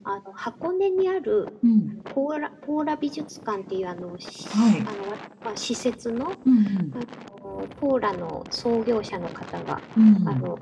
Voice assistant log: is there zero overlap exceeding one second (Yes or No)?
Yes